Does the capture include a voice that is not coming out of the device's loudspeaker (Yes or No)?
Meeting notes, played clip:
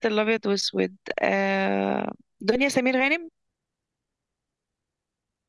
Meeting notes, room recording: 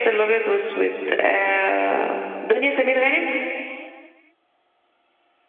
No